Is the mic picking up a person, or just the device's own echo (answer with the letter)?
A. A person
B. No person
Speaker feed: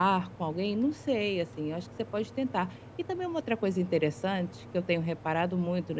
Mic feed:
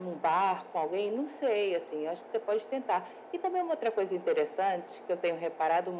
B